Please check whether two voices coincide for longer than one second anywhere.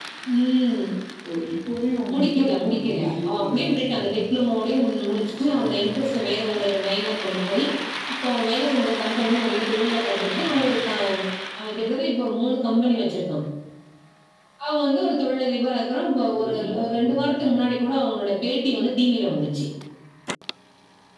Yes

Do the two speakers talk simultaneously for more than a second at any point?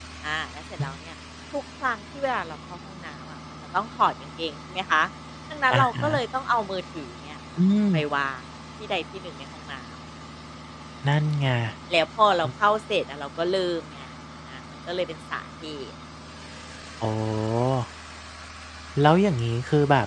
No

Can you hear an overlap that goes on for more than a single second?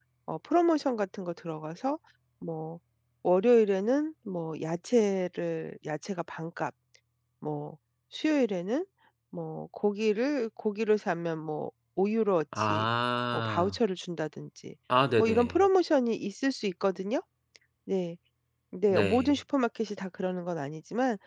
No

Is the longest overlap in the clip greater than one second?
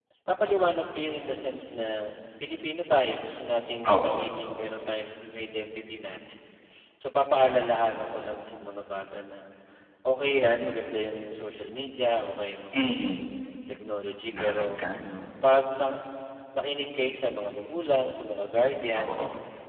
No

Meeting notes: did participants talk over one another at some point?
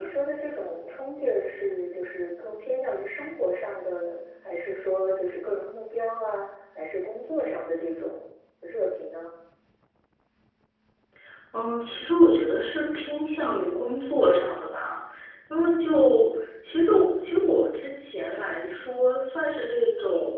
No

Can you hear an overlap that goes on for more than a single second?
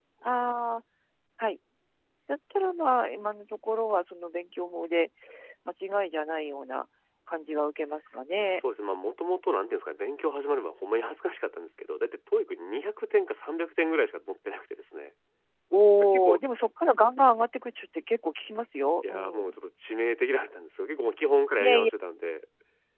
No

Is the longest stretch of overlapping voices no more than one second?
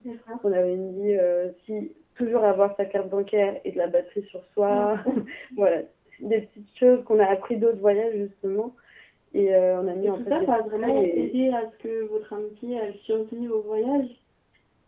No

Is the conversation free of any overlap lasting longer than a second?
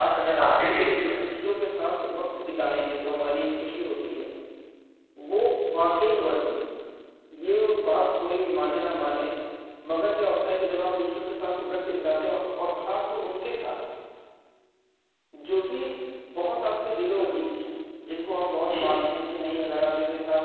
No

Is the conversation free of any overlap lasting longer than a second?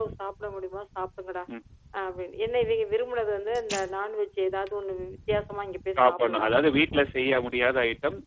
Yes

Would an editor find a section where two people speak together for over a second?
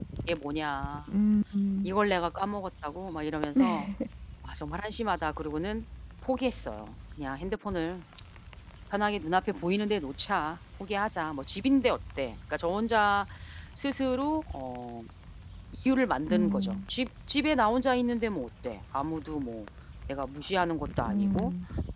No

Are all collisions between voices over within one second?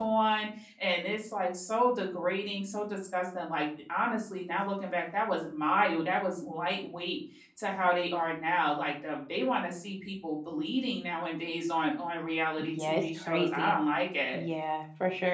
No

